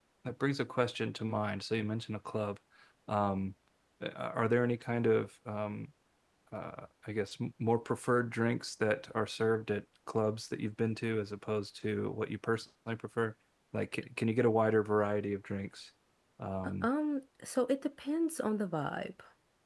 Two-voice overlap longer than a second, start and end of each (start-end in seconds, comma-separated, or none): none